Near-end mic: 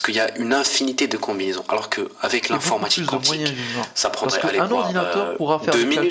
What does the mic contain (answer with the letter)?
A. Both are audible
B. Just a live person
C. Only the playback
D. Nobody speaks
A